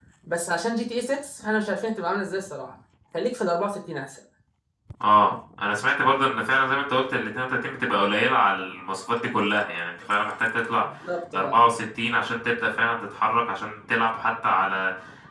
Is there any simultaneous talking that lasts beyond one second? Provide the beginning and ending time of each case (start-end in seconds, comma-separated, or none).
none